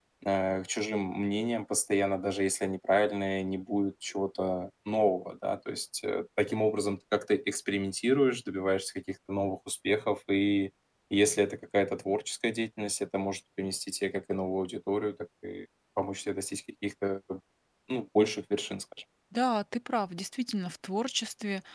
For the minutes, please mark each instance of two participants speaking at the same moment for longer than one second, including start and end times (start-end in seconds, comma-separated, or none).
none